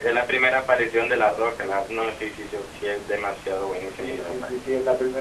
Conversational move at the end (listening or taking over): taking over